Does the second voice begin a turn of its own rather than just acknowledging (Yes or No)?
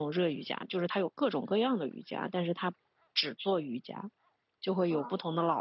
No